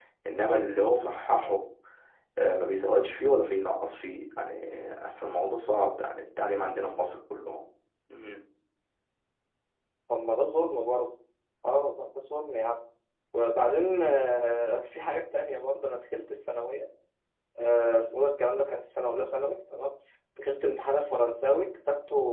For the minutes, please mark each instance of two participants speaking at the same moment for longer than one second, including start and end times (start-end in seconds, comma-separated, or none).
none